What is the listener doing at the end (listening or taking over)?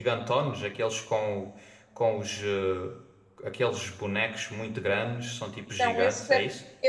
taking over